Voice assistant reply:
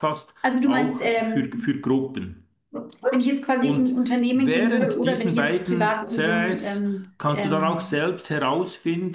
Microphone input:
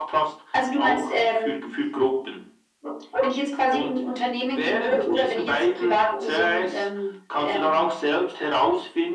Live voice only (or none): none